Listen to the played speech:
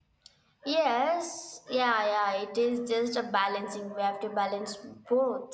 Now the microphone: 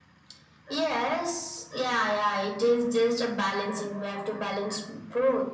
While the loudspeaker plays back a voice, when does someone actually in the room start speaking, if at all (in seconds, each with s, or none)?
none